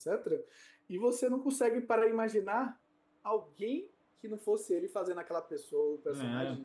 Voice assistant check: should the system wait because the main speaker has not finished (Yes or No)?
No